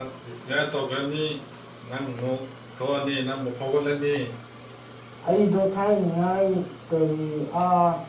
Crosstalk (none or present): none